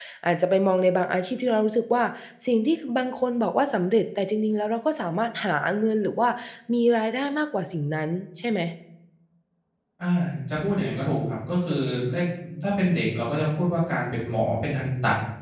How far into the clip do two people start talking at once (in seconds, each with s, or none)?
none